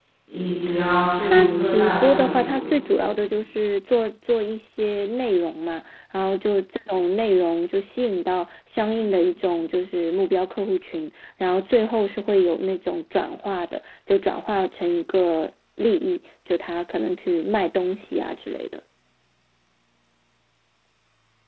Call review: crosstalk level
present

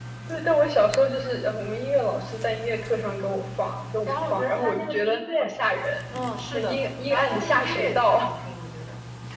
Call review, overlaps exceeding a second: present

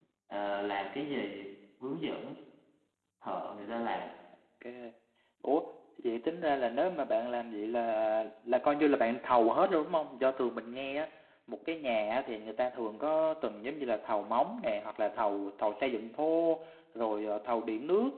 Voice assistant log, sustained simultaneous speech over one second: none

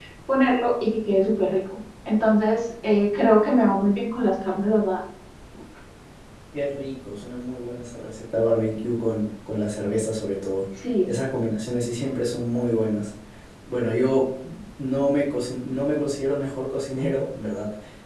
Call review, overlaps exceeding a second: none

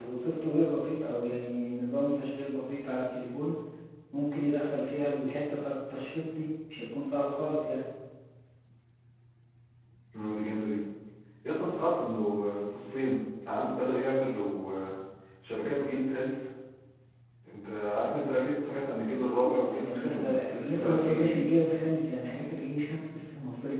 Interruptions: present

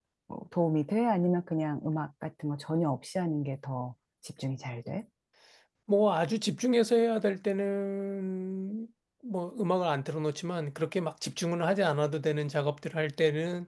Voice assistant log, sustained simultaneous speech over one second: none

